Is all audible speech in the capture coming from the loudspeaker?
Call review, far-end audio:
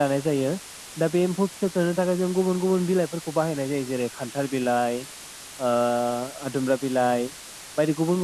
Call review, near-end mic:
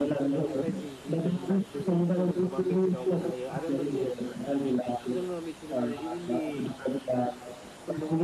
No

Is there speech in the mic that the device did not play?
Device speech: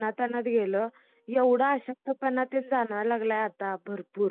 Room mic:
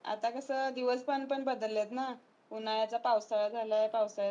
Yes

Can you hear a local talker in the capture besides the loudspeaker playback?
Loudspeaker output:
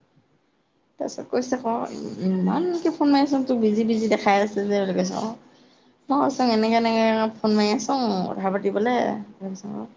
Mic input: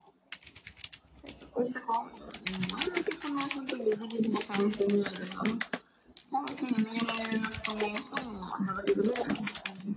No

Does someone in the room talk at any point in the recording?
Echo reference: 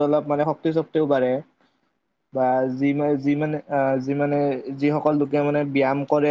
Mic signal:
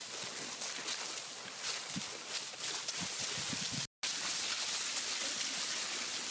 No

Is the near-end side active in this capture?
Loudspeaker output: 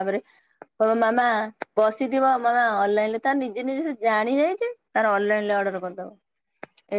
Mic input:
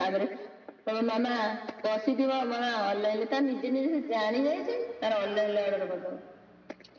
No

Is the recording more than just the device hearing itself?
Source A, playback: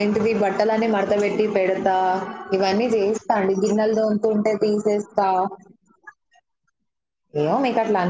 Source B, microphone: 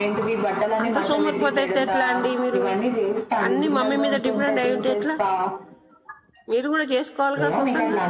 Yes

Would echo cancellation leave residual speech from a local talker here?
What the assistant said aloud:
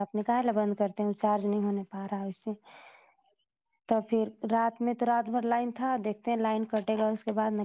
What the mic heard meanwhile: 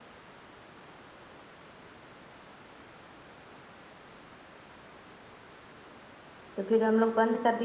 Yes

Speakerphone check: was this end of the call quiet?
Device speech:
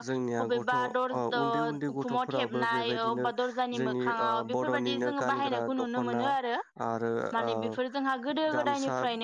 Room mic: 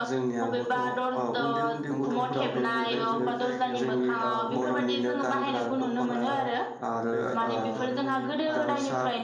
No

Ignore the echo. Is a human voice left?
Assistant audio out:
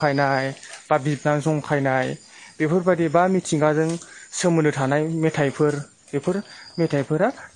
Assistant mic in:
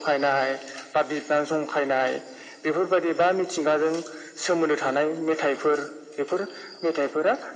No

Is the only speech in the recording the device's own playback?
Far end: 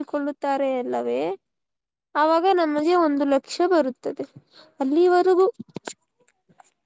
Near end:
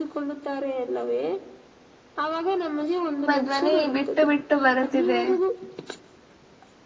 No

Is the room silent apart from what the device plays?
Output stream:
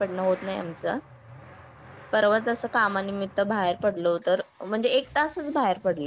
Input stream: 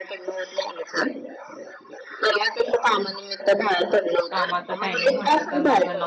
No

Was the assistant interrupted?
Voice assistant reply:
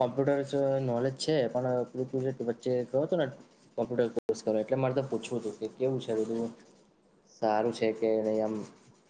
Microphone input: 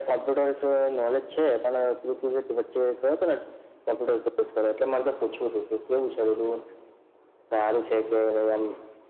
No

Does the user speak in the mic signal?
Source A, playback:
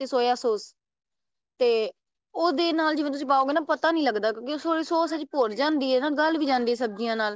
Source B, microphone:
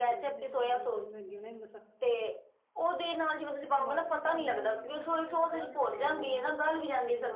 Yes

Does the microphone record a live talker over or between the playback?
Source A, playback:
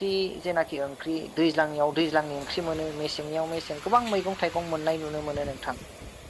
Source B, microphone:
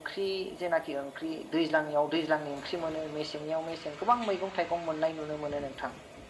No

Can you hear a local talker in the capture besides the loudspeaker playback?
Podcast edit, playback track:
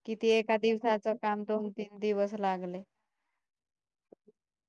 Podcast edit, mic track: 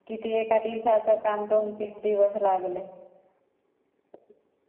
No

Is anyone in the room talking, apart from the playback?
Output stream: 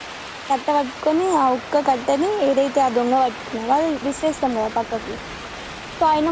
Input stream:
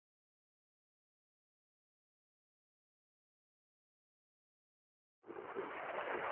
No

